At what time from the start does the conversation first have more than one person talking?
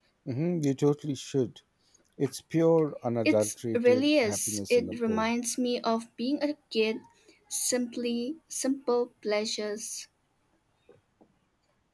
3.2 s

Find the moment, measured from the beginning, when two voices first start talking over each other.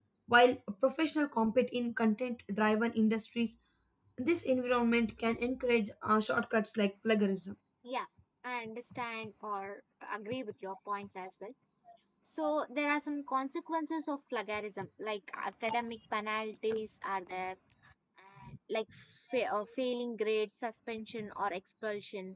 none

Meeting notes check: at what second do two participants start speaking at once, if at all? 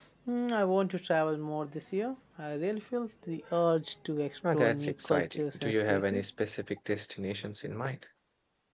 4.4 s

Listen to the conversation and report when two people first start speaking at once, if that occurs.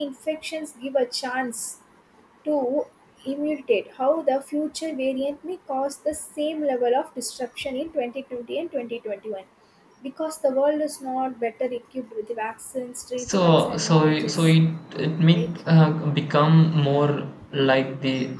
13.2 s

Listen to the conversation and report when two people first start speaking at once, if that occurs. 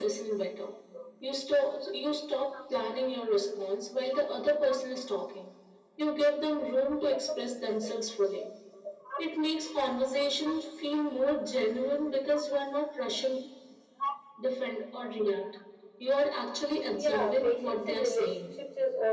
16.9 s

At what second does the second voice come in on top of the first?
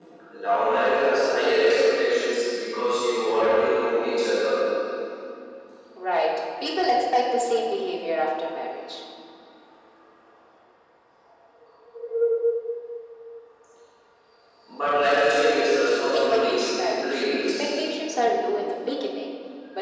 16.1 s

